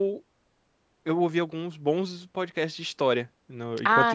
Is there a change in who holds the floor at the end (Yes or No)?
No